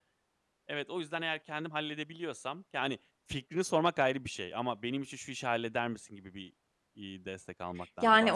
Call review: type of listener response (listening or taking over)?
taking over